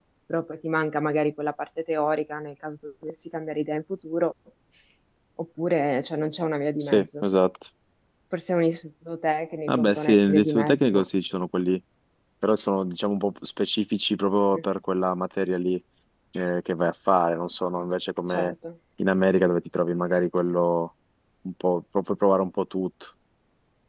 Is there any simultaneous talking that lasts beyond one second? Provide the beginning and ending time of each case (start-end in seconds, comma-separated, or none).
9.7-11.1